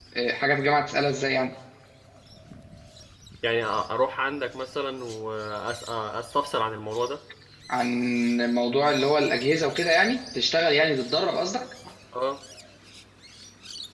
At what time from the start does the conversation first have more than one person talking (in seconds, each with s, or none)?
none